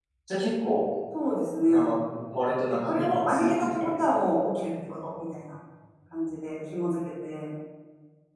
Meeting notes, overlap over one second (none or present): present